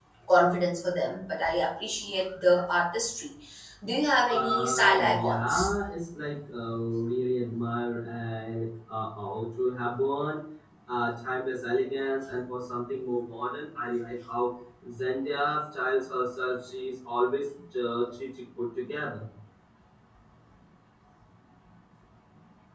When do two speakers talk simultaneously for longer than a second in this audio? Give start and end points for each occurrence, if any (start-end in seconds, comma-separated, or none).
4.3-5.8